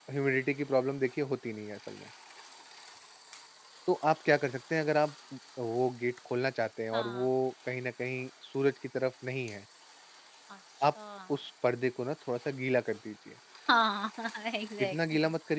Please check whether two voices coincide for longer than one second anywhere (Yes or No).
No